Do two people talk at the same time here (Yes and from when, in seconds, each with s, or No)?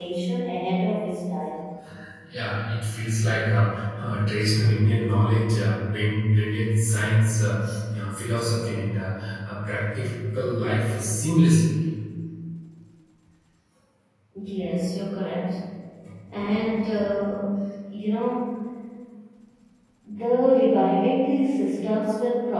No